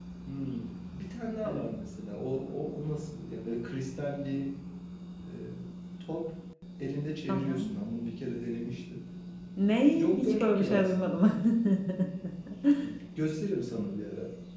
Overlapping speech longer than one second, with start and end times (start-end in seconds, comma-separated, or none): 10.0-11.2